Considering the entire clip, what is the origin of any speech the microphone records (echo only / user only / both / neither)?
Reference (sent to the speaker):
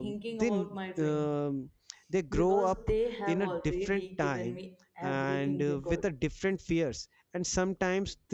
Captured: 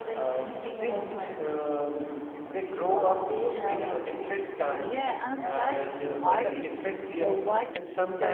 both